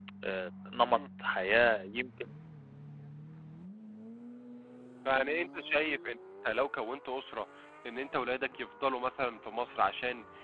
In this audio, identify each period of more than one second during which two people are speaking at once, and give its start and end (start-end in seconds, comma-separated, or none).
none